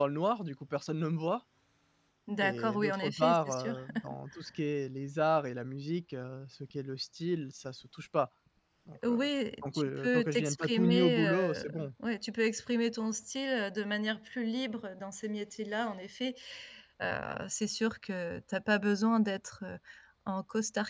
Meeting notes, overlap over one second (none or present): present